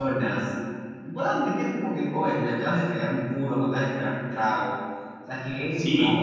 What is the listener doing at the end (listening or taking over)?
taking over